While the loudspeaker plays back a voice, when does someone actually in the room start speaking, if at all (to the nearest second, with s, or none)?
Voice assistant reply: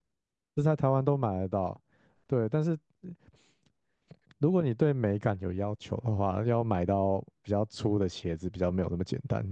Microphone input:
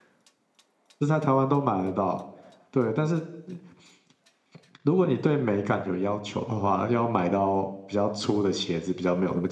none